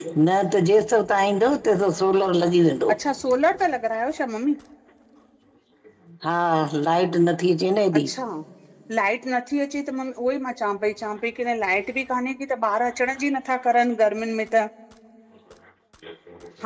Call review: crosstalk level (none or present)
none